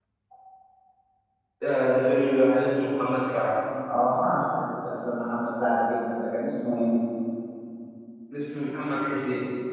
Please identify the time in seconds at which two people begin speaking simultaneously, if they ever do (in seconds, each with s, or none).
none